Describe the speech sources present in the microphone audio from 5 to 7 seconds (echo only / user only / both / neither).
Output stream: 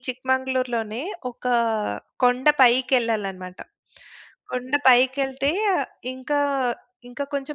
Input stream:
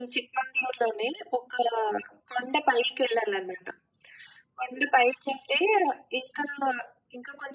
echo only